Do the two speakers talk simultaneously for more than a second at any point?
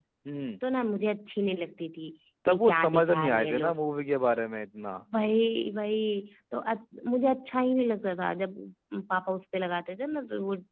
Yes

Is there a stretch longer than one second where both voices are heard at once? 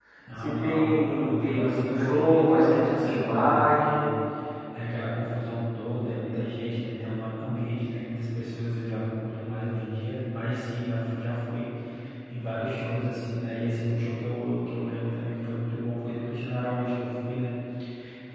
Yes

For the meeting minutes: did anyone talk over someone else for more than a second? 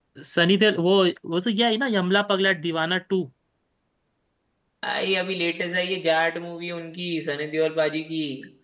No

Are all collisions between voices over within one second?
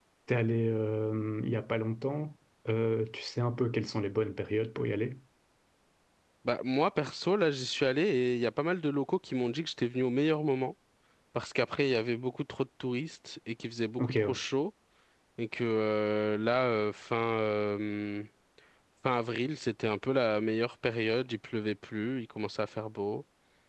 Yes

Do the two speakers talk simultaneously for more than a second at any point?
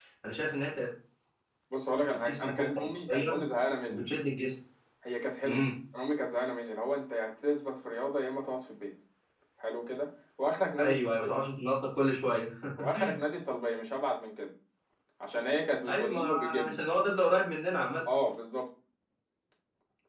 Yes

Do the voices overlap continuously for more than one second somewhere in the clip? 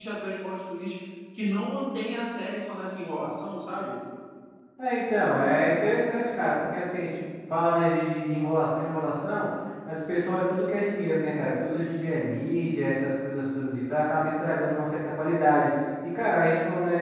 No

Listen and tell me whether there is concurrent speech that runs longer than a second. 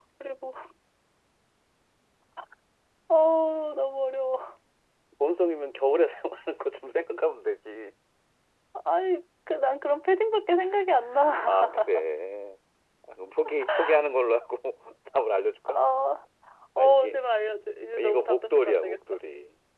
Yes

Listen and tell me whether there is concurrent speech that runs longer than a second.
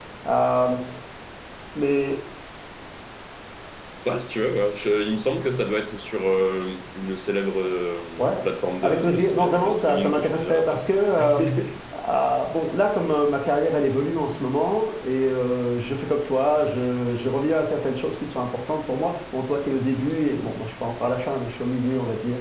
Yes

